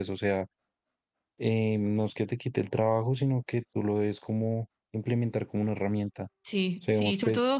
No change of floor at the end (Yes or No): No